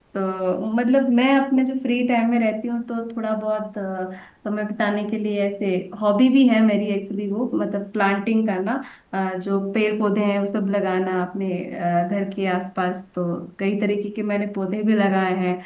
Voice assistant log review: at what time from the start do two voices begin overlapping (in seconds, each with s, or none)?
none